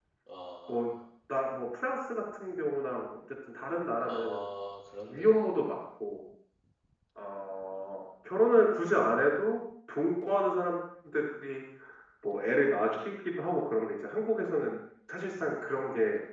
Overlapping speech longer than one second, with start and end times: none

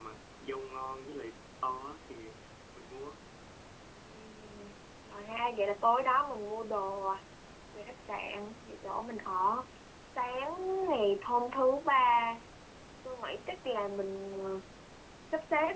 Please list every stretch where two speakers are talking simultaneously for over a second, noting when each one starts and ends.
none

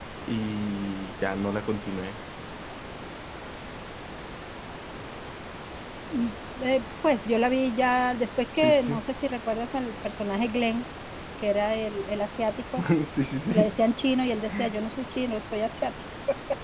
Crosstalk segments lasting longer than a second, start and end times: none

